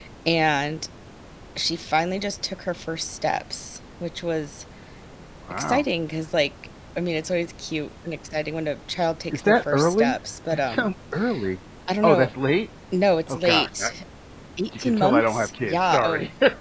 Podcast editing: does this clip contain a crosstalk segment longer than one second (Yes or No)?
Yes